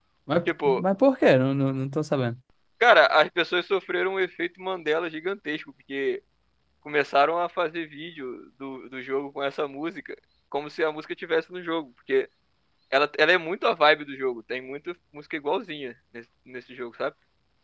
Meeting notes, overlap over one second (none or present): none